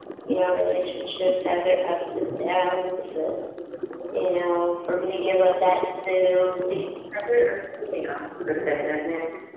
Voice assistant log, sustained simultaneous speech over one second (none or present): none